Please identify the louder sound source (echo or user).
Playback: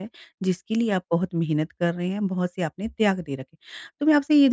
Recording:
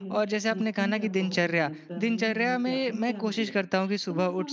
user